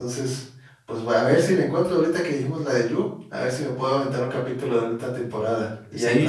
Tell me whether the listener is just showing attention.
No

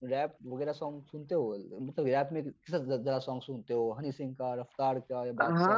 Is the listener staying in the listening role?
No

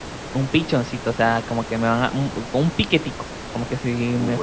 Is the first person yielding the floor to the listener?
Yes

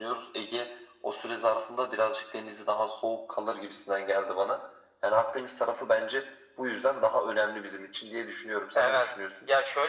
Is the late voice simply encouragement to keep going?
No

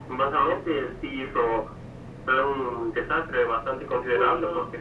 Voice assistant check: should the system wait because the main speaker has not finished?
Yes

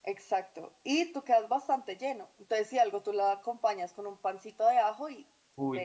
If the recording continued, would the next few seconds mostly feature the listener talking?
Yes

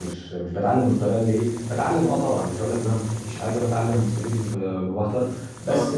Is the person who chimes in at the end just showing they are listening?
Yes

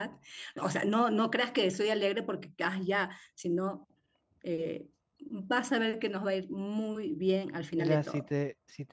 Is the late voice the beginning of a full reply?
Yes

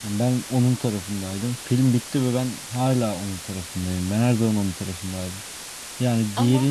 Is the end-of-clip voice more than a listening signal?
No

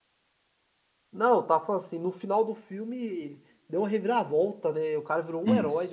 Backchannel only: No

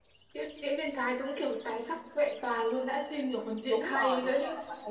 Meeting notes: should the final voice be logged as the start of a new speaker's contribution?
Yes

